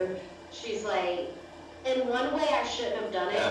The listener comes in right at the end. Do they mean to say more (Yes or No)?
No